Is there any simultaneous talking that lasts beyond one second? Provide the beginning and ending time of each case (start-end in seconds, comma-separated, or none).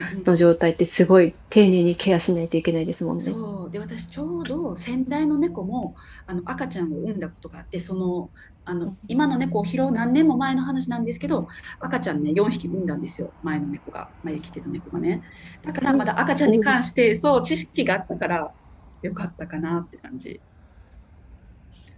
none